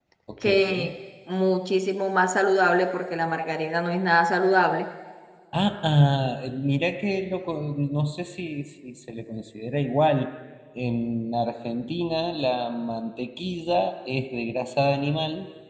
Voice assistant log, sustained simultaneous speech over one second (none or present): none